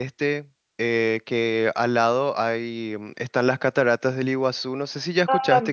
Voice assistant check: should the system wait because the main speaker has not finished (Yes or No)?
No